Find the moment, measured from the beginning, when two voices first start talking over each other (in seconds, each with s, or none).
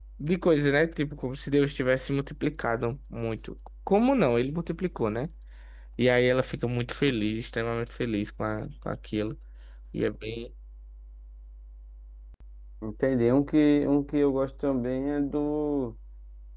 none